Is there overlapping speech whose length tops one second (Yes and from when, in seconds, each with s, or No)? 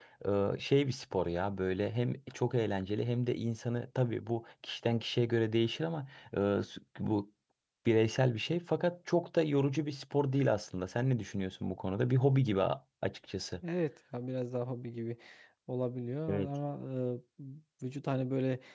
No